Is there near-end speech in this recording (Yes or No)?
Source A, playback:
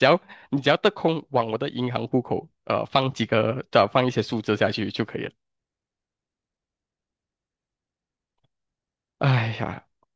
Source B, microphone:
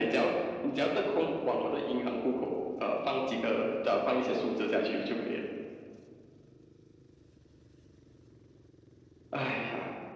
No